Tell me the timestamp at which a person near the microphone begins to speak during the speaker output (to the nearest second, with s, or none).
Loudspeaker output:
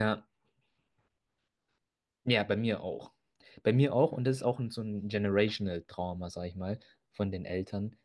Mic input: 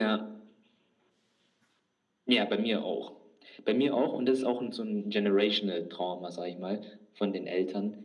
none